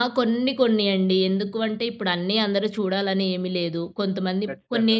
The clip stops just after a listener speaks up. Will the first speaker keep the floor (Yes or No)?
Yes